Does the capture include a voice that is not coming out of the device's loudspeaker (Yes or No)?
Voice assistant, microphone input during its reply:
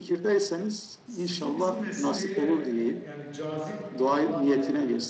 Yes